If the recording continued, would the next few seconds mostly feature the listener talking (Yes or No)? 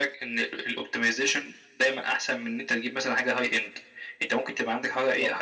No